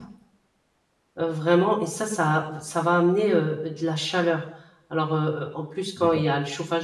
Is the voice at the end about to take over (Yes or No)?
No